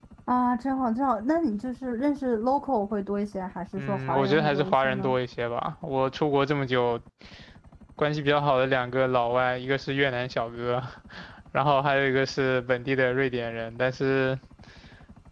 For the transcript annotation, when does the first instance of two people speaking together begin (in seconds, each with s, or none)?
3.8 s